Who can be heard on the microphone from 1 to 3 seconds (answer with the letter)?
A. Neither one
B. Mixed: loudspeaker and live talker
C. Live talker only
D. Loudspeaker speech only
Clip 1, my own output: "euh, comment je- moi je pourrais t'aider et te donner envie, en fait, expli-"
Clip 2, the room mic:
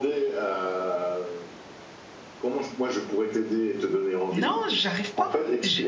D